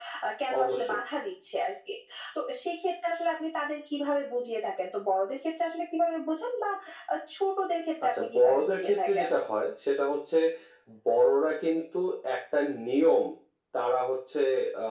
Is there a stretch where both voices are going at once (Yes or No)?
Yes